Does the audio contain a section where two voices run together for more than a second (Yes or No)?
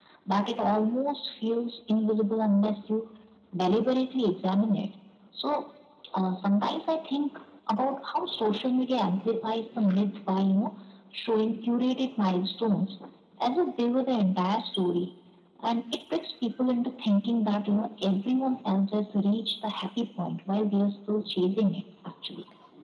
No